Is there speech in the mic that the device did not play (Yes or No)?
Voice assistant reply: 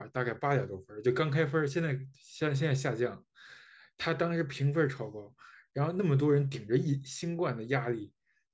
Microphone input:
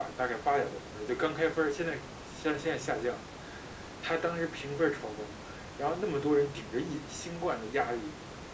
No